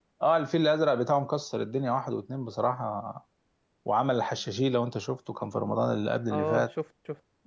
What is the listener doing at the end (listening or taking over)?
taking over